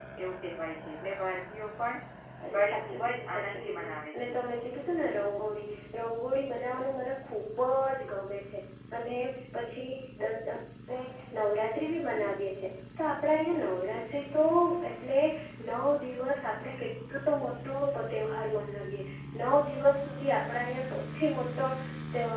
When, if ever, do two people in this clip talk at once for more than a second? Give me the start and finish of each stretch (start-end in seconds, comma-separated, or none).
2.5-4.4